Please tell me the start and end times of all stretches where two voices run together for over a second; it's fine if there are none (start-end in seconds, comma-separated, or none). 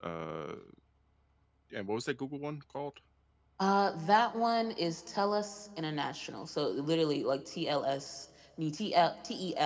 none